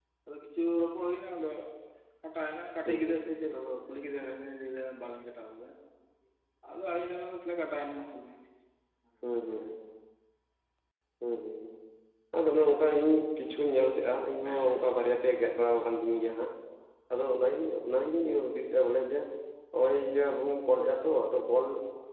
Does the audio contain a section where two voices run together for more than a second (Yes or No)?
No